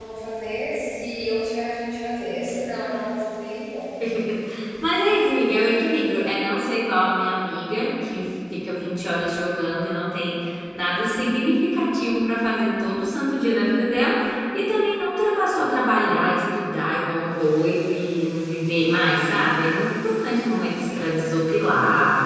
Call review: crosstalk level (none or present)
none